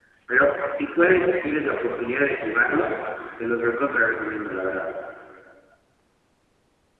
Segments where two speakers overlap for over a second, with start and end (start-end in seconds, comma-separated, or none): none